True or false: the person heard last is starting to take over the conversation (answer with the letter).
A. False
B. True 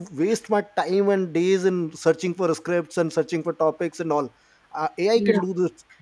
A